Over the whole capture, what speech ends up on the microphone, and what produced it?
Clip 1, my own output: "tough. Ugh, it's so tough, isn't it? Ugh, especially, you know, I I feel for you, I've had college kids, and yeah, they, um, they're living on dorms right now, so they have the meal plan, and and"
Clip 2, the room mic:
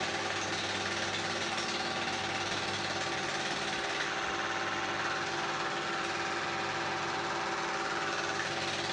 neither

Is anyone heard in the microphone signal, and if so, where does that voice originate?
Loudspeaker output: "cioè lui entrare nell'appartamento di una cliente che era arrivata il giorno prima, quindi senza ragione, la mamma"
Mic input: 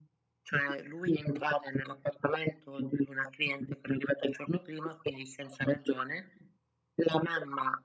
echo only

